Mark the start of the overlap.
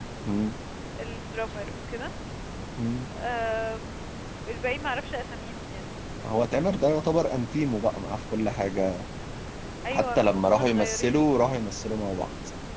10 s

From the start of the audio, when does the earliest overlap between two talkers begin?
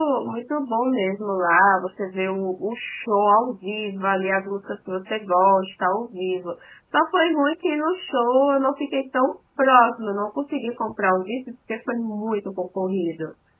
none

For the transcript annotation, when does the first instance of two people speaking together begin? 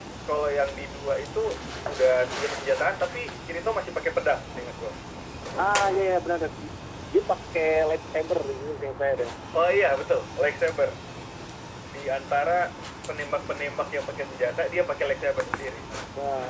none

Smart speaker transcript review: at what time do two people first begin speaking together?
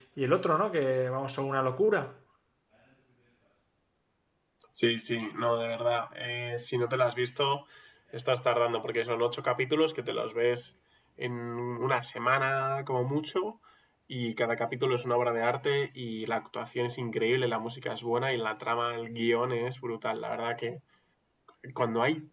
none

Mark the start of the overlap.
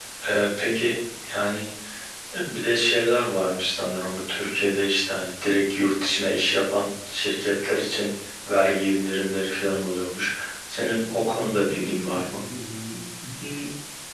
11 s

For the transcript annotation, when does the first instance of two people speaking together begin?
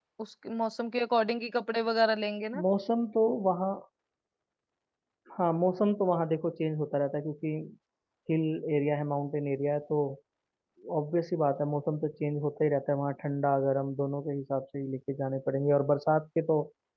none

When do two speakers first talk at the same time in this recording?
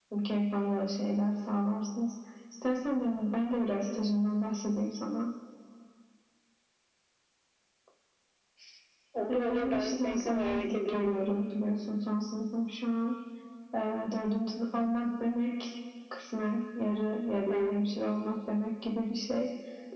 9 s

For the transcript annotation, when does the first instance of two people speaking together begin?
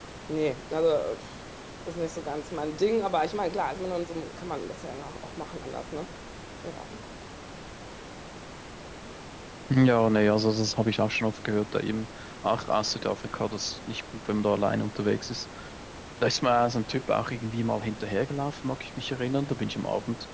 none

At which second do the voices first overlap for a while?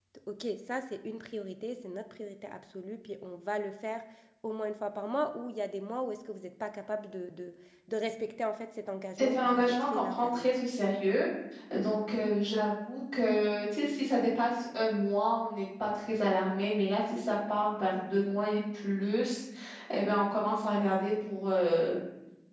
9 s

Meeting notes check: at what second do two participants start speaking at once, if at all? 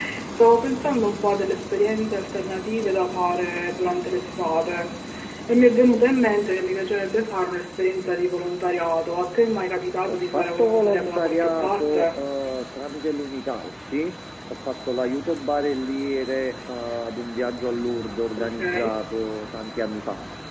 10 s

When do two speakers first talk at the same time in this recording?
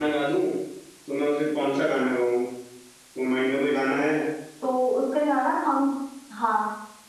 none

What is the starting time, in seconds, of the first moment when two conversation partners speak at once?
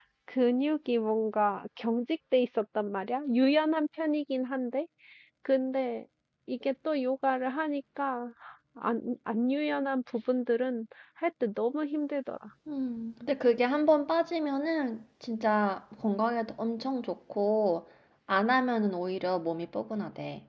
none

